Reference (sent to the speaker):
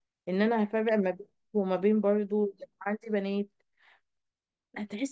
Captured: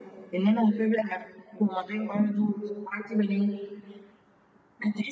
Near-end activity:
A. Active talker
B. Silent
B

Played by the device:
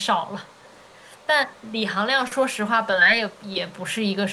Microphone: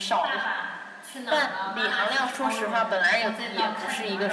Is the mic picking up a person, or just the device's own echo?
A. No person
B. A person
B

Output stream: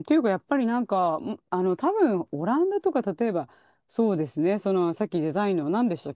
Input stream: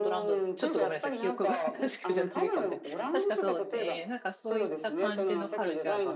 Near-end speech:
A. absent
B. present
B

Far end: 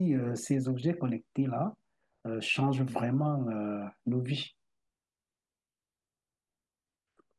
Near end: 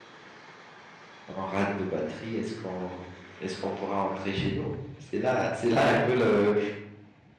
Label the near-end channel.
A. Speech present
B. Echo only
A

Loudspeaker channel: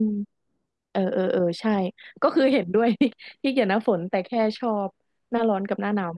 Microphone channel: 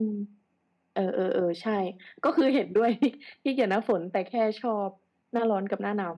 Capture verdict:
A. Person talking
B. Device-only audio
B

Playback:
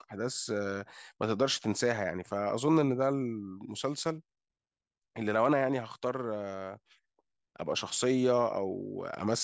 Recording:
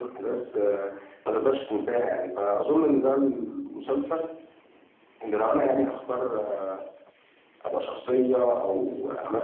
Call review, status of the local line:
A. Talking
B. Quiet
B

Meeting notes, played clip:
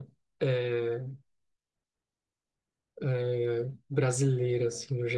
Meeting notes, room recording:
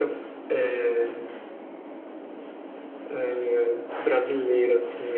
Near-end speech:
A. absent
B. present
A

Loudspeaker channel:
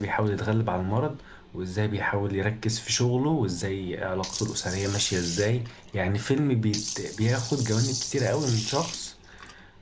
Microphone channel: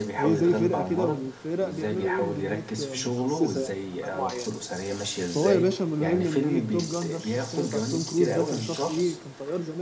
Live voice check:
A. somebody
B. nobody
A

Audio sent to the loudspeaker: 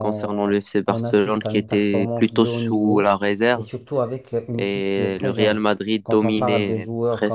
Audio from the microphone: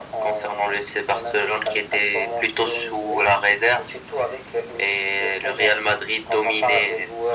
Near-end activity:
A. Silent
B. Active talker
A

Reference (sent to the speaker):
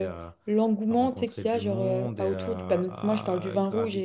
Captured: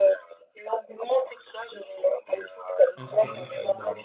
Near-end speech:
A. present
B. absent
A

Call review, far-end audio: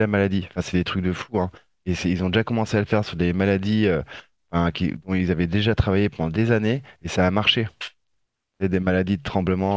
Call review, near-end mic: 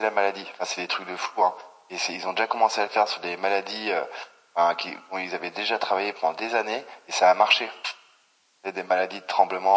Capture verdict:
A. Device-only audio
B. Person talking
A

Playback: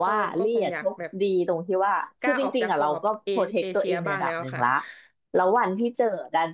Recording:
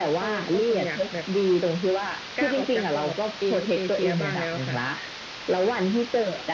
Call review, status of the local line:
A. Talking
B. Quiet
B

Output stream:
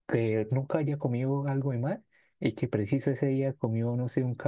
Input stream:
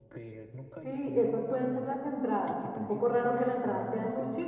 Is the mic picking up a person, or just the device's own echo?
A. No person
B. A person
B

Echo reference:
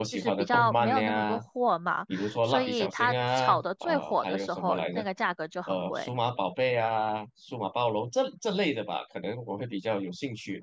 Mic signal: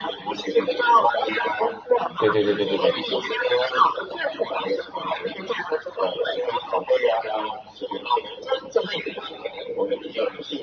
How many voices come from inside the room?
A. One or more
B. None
A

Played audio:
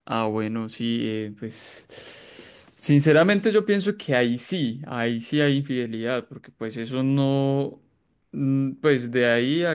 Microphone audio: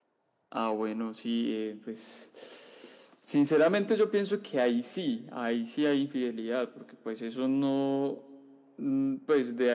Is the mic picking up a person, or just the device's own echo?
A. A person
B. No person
B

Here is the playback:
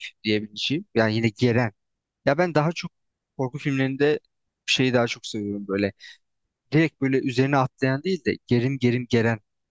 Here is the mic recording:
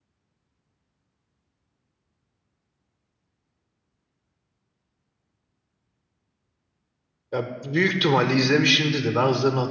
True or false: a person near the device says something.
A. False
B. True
B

